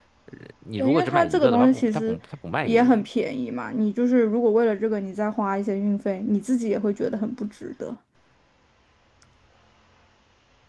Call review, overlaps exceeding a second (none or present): present